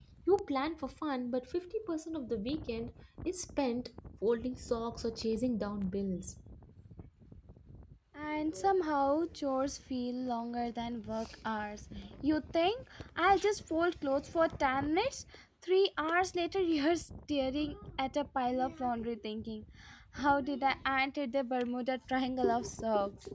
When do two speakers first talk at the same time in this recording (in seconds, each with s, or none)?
none